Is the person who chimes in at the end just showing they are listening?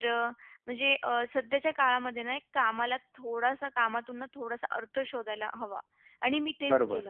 No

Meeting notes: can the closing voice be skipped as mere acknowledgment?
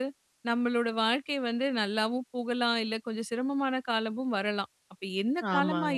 Yes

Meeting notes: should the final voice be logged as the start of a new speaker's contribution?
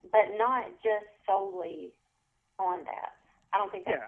Yes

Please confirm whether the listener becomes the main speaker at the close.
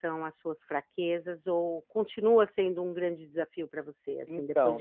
Yes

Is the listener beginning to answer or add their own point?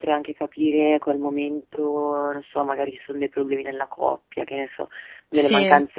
No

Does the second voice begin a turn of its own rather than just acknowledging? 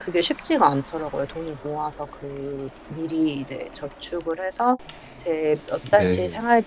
No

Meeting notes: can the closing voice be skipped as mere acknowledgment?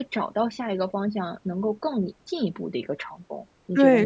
No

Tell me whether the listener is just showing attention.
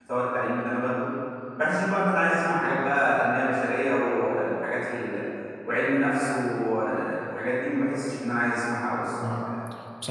No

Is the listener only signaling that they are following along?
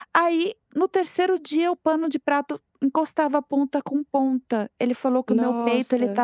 Yes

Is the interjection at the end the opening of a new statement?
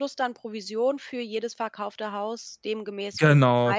Yes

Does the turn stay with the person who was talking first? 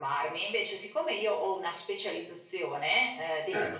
Yes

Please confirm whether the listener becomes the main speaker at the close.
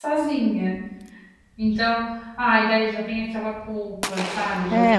Yes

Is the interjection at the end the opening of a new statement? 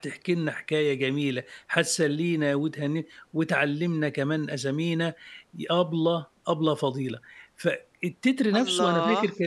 No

